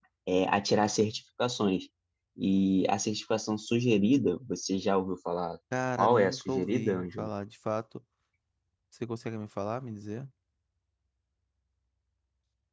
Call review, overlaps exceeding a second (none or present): present